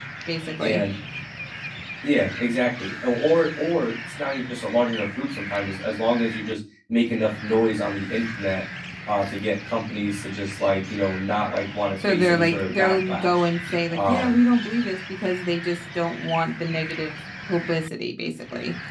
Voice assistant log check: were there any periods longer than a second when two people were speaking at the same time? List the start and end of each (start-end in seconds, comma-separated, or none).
12.1-13.5